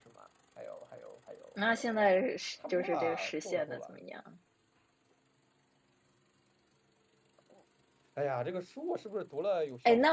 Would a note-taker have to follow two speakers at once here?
Yes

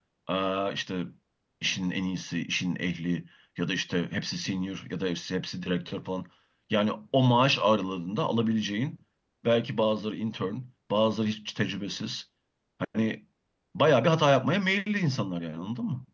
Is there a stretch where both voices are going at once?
No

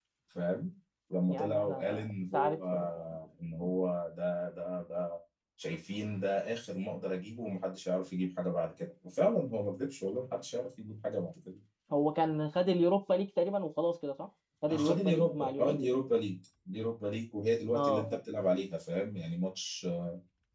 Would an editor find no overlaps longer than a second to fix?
No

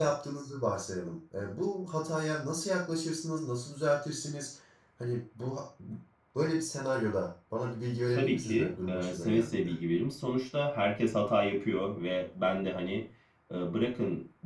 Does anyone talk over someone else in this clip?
Yes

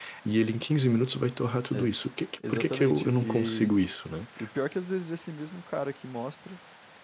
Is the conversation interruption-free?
No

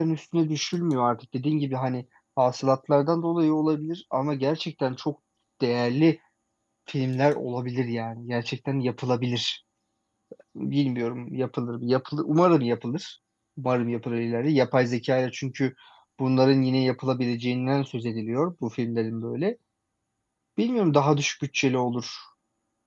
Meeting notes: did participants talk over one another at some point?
No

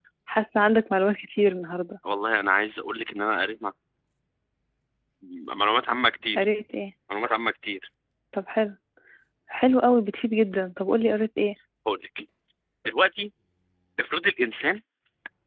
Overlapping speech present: No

